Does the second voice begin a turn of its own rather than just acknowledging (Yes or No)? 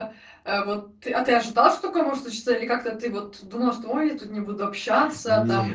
No